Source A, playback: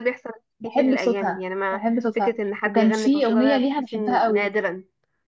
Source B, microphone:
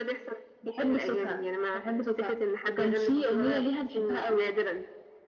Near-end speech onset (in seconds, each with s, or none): none